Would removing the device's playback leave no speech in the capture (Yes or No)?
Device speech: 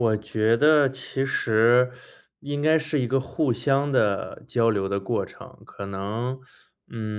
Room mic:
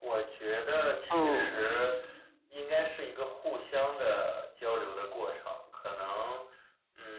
No